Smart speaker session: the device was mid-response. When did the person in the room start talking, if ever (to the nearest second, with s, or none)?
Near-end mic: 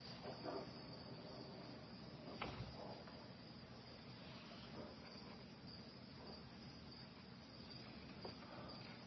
none